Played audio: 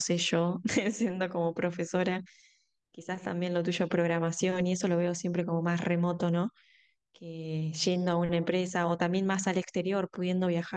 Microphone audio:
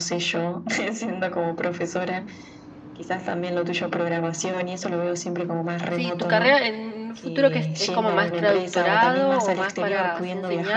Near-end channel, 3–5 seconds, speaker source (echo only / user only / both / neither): echo only